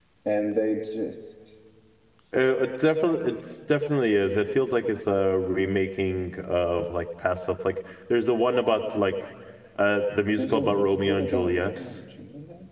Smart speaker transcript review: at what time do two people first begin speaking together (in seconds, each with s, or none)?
10.4 s